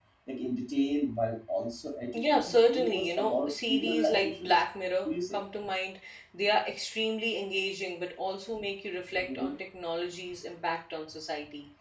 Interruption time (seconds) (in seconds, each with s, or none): 2.3 s